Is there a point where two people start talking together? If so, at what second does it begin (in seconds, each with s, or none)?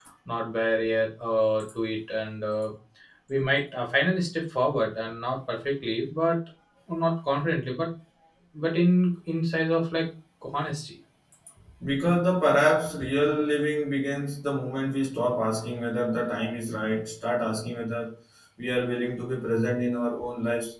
none